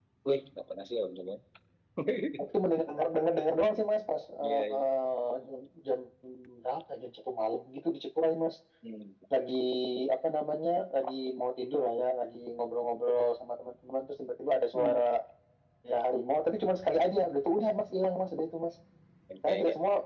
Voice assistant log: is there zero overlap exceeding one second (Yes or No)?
Yes